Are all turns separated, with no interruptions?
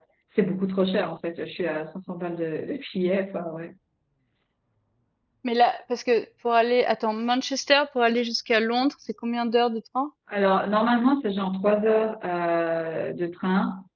Yes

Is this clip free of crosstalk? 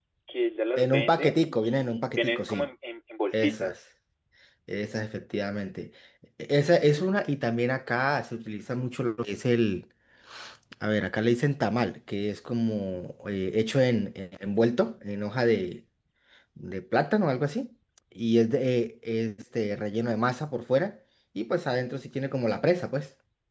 No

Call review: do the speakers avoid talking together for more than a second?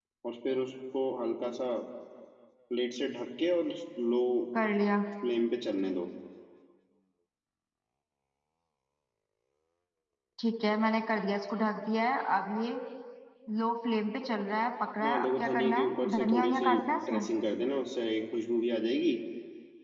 No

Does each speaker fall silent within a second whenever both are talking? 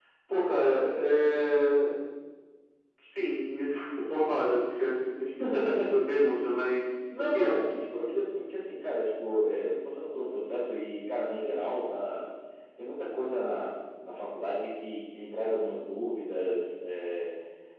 Yes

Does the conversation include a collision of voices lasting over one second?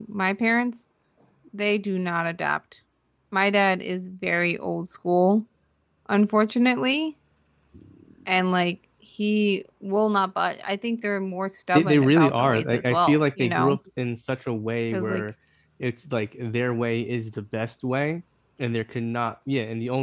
Yes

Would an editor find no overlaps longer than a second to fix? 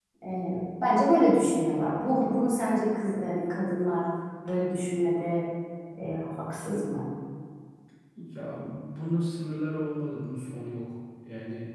Yes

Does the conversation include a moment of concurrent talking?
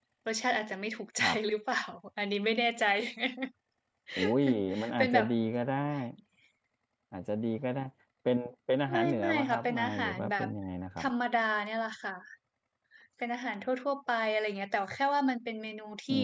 Yes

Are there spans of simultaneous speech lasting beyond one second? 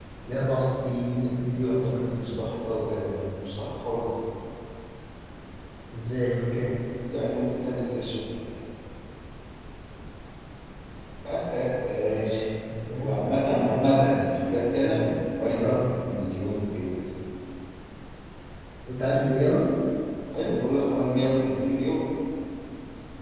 Yes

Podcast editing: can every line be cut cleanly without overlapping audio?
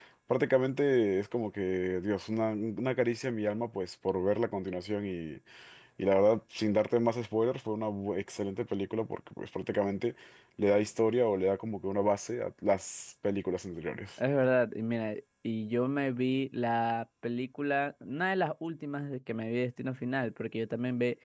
Yes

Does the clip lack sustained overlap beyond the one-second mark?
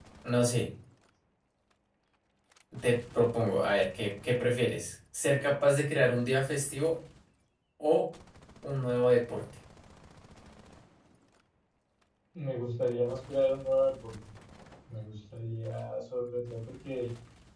Yes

